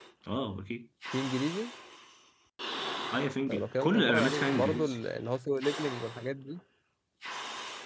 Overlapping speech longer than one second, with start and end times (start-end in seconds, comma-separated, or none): 3.5-5.0